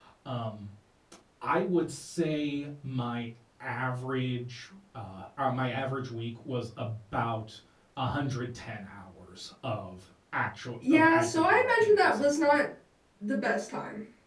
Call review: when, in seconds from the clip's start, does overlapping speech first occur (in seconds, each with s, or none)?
10.8 s